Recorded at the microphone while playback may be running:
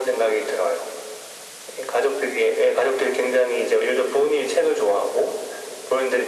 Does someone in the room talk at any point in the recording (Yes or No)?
No